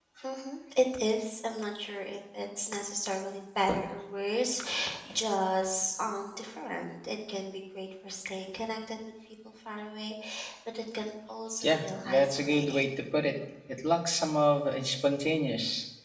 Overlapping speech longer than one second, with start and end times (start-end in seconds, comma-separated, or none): 11.6-12.9